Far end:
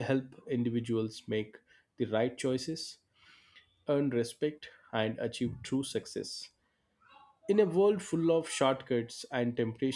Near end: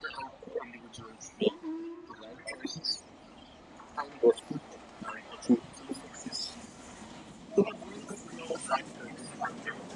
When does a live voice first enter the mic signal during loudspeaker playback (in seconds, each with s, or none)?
none